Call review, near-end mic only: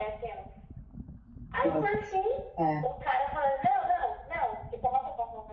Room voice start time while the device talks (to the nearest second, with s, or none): 2 s